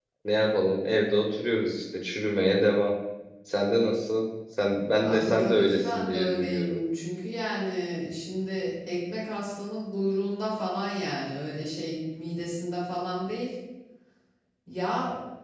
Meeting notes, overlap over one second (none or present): present